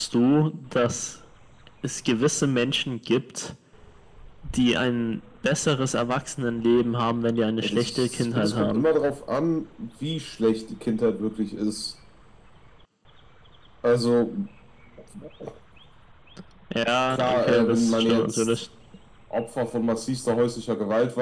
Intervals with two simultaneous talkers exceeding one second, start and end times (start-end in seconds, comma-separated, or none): 7.6-8.8, 17.1-18.6